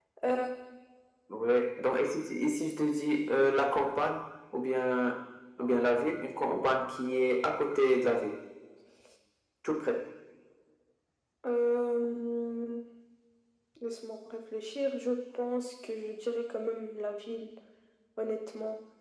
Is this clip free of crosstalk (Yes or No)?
Yes